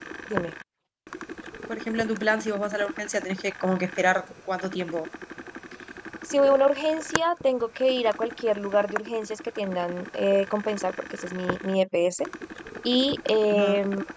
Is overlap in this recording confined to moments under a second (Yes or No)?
Yes